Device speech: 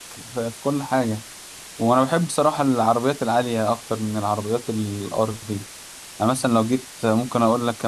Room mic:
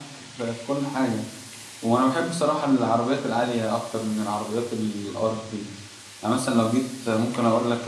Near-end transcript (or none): none